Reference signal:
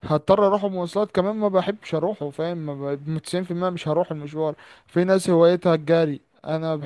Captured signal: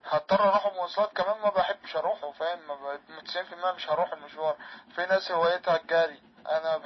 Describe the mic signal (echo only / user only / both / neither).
echo only